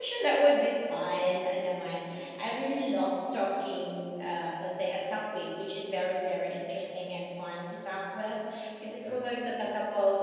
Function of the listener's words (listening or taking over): listening